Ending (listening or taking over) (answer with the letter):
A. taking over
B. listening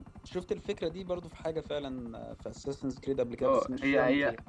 A